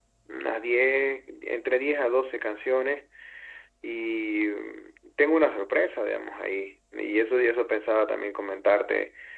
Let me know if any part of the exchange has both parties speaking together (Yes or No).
No